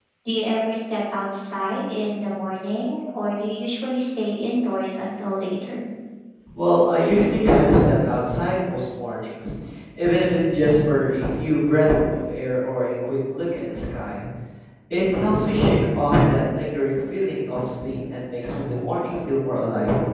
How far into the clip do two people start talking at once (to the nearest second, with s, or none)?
none